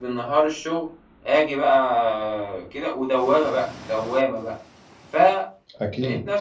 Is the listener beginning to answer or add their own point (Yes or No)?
No